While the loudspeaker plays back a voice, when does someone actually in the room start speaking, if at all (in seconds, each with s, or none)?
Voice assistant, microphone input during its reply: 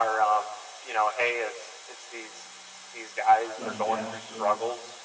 3.5 s